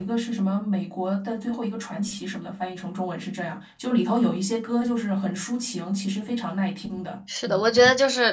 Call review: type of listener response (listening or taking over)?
taking over